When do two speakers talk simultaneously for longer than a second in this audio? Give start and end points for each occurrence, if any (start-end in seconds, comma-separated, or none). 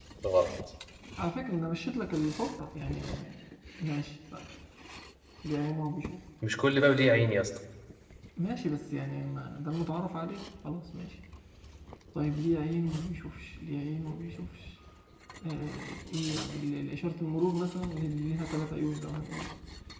none